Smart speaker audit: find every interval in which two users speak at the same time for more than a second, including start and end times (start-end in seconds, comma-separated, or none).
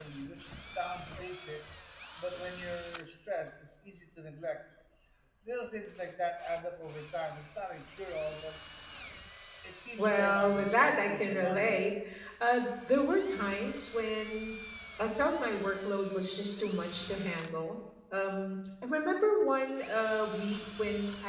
10.0-11.8